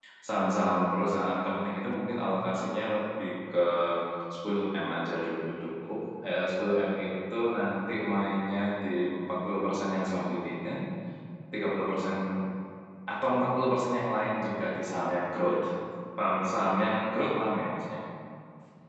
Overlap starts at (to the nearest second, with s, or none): none